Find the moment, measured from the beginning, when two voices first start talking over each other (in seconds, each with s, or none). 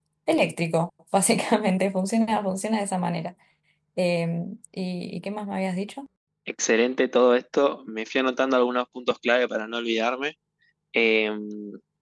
none